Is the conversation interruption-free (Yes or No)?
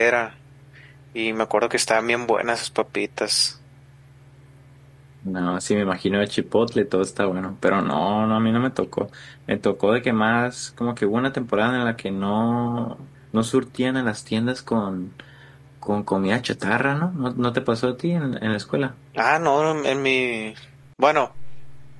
Yes